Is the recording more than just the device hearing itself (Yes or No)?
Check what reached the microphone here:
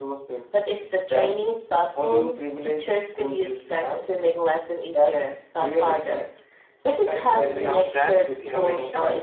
Yes